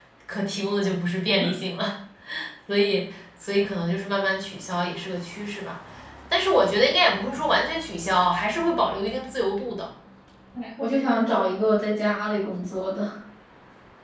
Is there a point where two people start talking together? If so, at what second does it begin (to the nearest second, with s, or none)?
none